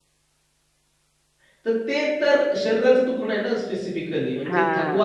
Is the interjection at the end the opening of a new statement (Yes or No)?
No